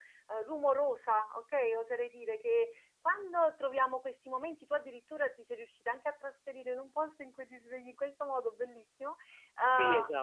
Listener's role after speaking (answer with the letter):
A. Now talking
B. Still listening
A